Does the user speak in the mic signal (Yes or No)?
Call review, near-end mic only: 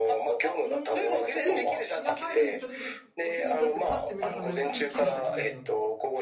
Yes